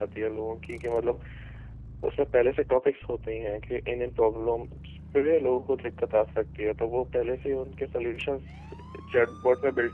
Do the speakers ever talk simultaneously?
No

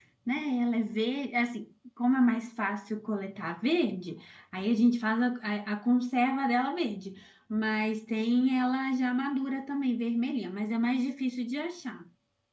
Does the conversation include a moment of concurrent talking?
No

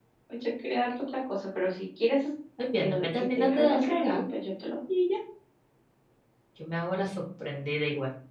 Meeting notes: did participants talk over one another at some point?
Yes, from 2.8 s

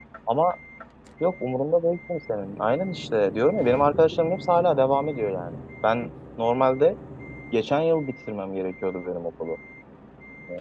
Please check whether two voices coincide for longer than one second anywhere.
No

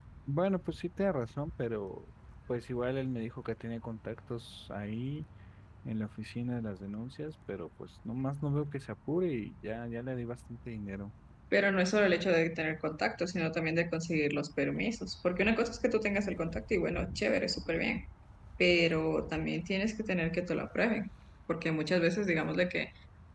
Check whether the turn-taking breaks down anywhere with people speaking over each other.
No

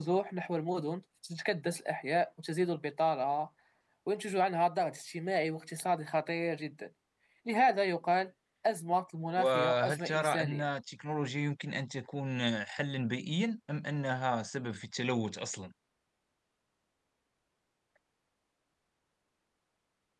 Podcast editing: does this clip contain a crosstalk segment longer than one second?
Yes, from 9.4 s

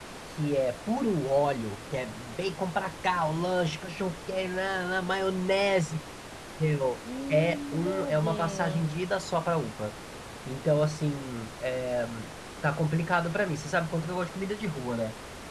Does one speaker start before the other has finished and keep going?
Yes, from 7.3 s

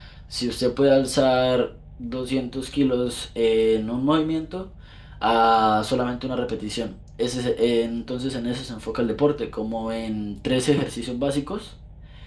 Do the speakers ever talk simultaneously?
No

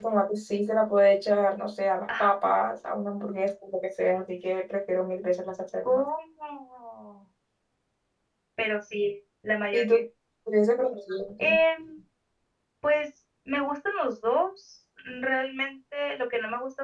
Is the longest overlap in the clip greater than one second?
No

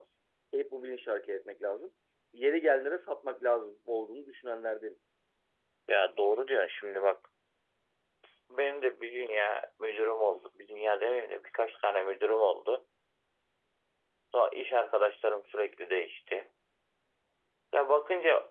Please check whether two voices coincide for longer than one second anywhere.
No

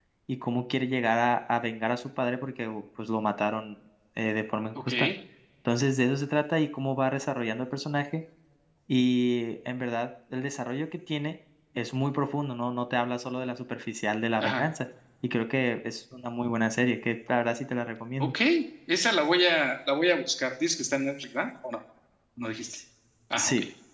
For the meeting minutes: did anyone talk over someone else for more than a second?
No

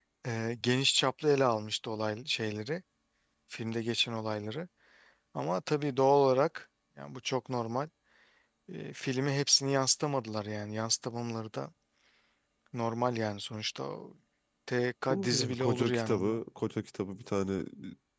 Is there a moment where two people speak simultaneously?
Yes, from 15.1 s

